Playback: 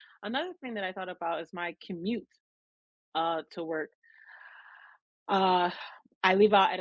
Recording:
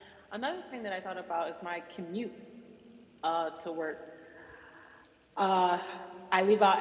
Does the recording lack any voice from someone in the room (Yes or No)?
Yes